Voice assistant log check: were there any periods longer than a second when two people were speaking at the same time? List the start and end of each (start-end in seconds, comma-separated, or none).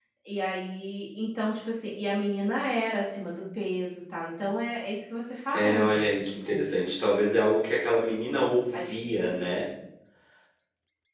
5.5-6.7